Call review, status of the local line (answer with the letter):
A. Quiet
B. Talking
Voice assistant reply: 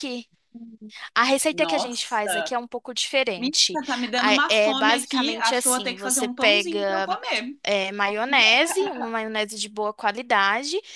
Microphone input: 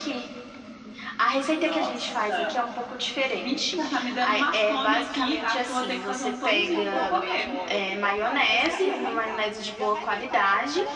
B